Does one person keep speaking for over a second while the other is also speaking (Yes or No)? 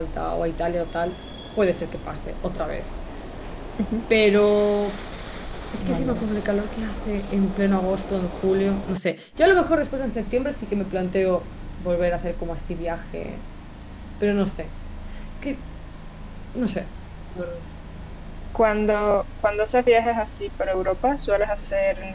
No